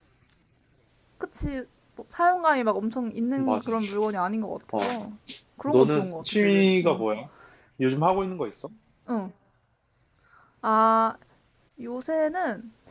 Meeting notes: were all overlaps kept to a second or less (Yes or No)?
No